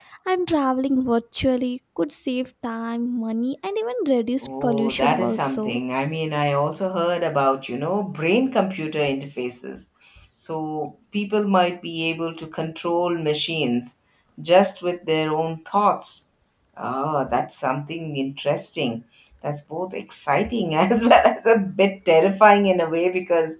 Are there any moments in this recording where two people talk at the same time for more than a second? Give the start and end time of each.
4.4-5.8

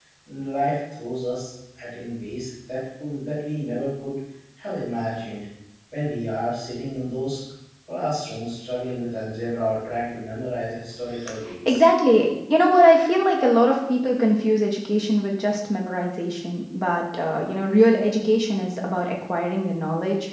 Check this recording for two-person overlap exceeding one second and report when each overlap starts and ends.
none

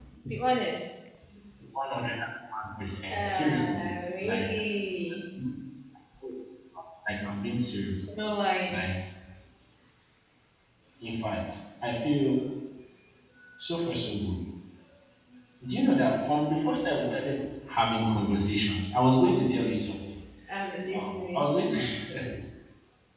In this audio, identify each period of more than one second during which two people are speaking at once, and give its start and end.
3.1-4.5

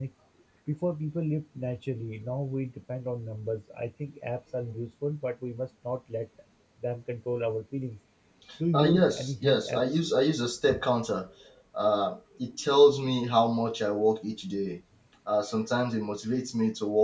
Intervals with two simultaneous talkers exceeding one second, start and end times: 8.7-10.0

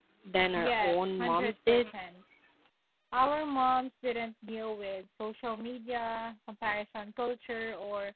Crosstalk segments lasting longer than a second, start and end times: 0.6-1.8

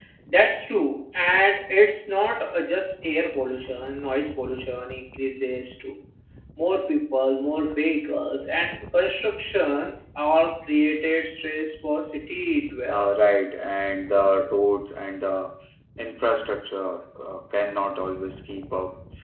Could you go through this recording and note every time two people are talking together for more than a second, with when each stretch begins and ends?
none

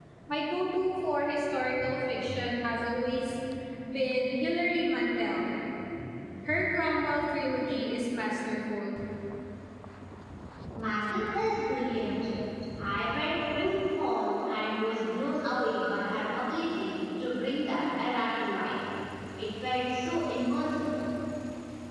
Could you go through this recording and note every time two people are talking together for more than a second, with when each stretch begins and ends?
none

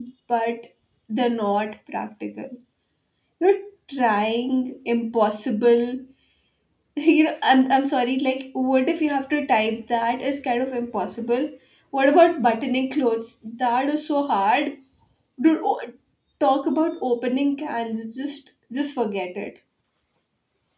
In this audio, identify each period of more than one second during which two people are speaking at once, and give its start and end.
none

